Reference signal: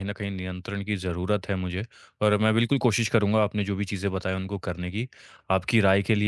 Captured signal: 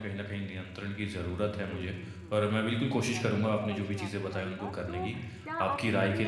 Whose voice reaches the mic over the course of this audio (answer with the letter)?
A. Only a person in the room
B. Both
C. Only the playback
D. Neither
B